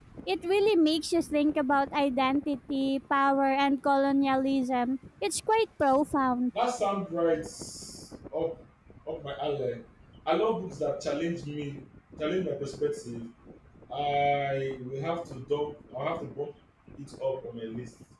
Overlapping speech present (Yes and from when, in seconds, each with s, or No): No